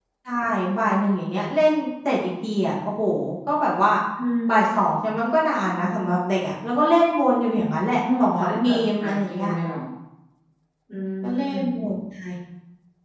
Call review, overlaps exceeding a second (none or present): present